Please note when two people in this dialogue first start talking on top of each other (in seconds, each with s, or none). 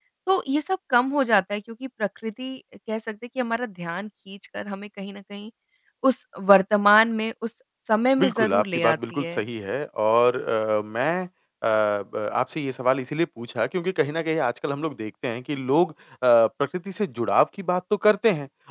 8.2 s